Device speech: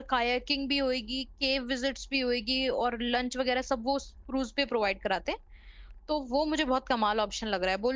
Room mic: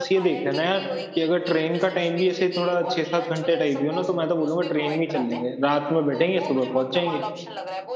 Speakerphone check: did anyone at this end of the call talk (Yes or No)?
Yes